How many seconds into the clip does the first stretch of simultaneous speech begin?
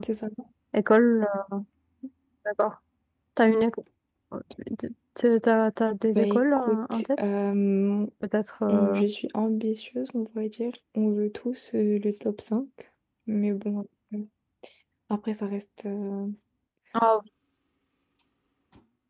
6.2 s

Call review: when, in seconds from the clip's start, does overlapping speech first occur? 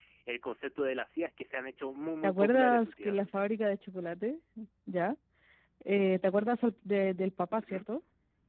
2.2 s

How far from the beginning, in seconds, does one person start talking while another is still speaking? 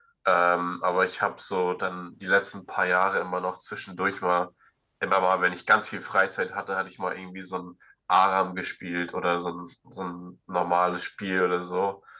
none

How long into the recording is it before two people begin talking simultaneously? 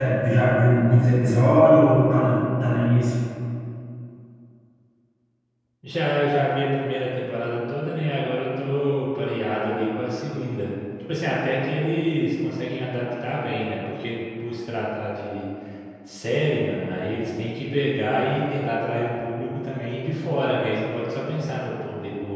none

